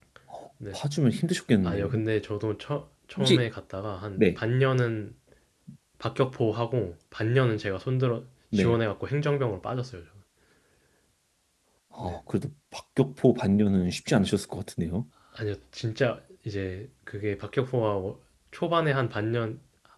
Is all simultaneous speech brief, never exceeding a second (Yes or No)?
Yes